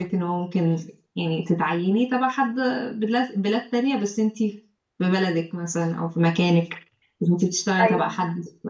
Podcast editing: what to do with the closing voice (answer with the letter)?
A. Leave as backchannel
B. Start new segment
A